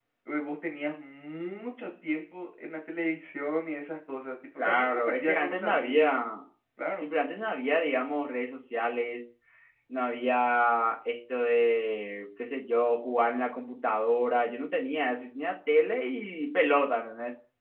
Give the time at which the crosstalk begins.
5 s

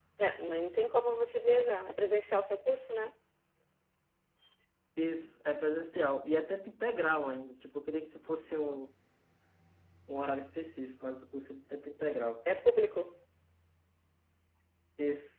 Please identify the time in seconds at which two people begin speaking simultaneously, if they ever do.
none

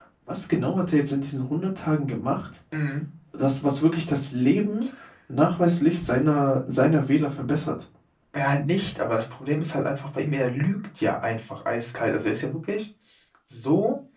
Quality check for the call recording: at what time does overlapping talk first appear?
none

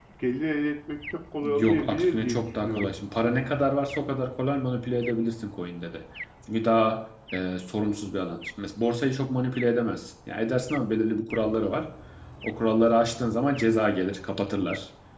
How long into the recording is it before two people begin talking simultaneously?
1 s

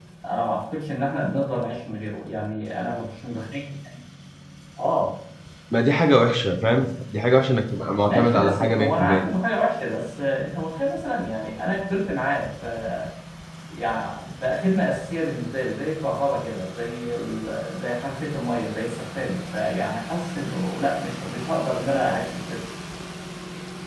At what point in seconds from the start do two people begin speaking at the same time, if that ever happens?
8 s

